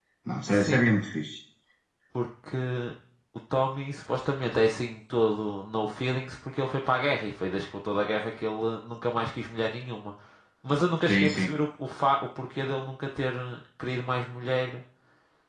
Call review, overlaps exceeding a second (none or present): none